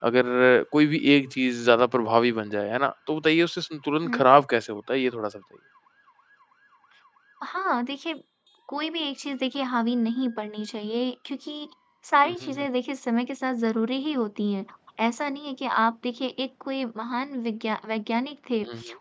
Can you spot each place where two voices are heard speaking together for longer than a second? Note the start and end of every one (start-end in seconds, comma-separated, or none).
none